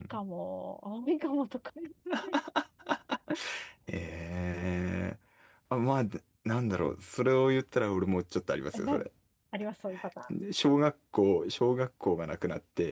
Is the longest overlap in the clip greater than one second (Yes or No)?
No